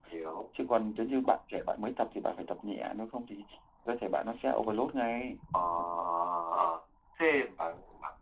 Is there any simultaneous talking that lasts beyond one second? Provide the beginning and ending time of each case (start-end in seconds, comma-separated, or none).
none